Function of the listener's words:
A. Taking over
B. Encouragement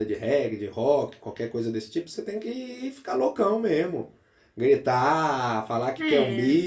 B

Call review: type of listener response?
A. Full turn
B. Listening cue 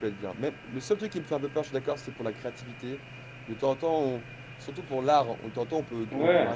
B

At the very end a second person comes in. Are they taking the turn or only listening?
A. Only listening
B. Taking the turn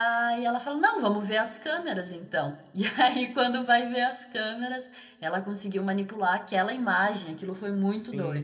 B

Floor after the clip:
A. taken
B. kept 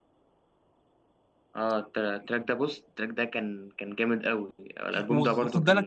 A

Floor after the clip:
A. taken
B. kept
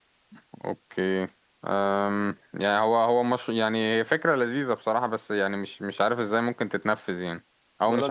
B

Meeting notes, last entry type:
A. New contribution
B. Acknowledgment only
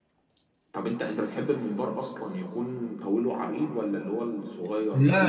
A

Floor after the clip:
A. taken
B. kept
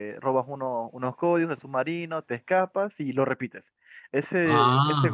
B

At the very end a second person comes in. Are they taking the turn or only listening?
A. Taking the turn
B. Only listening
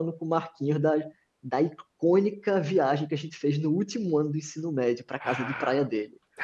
A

